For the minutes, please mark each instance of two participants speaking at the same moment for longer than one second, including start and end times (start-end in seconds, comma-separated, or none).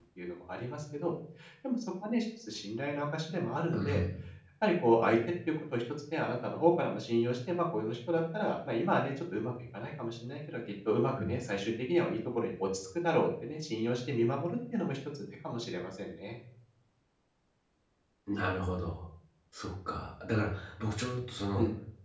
none